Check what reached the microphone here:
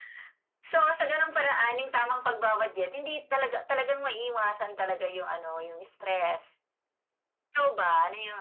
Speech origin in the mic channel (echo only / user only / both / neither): echo only